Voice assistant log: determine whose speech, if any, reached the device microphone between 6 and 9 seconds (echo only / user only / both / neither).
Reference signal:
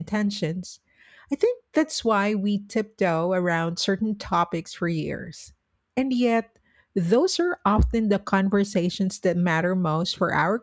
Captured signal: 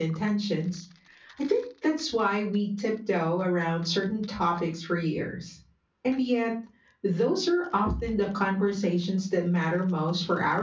echo only